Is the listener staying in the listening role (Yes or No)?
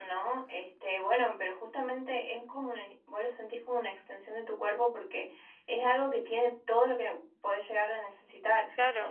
Yes